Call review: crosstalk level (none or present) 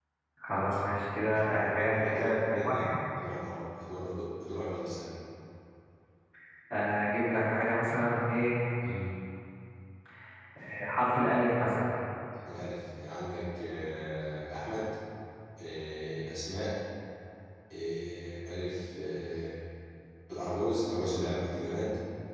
present